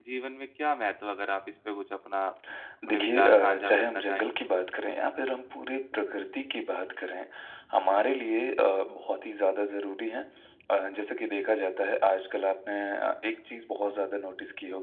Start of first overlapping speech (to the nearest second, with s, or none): 3 s